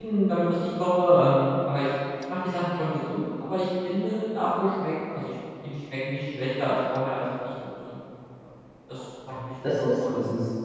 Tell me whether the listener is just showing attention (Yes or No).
No